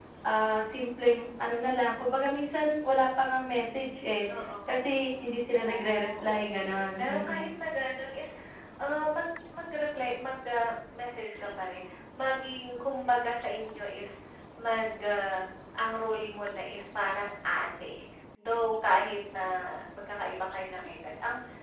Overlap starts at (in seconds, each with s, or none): 5.5 s